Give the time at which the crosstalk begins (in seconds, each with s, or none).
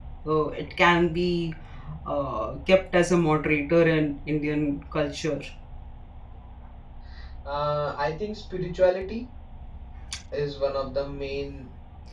none